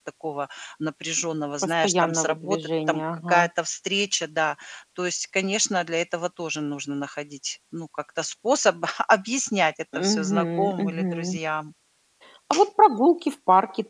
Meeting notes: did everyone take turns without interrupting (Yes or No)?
No